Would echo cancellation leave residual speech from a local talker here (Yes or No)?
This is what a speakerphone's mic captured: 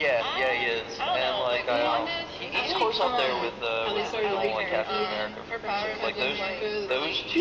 Yes